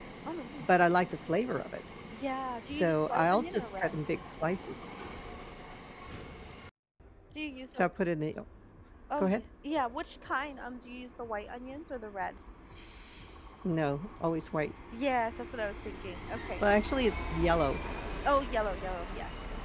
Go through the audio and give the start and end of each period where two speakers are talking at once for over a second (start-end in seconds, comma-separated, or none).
2.6-3.9